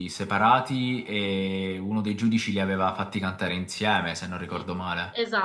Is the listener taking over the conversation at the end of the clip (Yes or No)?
Yes